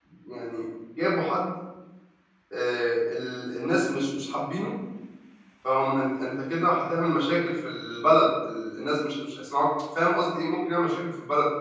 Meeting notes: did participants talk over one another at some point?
No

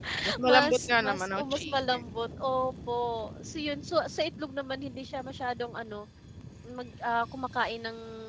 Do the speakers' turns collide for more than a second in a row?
Yes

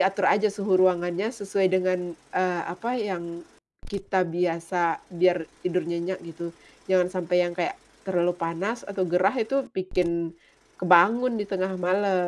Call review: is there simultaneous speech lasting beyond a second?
No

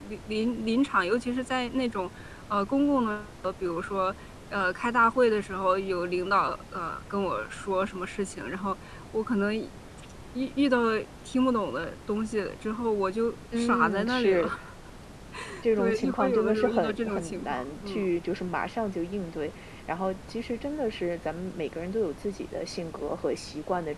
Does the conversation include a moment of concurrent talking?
Yes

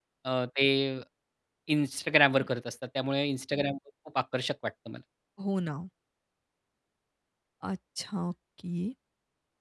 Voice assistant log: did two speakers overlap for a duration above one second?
No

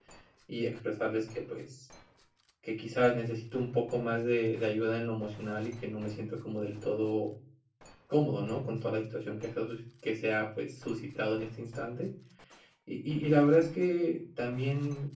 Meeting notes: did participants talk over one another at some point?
No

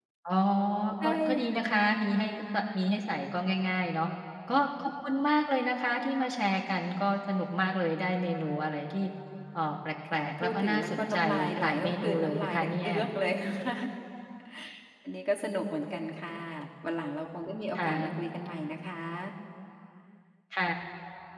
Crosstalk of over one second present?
Yes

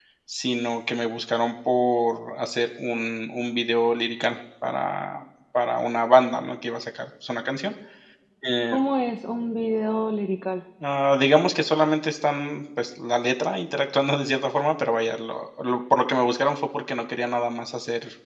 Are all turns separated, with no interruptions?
Yes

